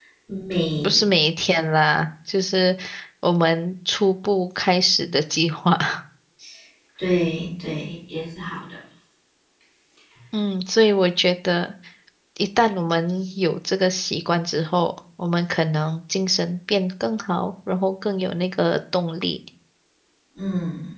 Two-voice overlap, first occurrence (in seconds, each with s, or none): none